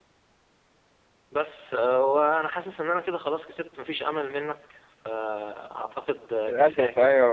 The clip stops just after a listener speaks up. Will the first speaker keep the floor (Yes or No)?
No